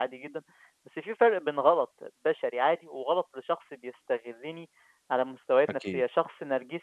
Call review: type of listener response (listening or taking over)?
listening